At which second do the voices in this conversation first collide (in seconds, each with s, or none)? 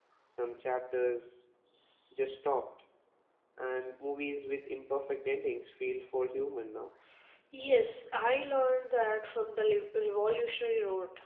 none